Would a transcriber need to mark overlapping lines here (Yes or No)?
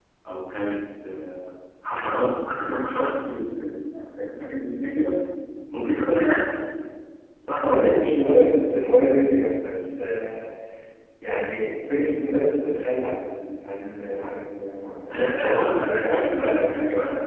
Yes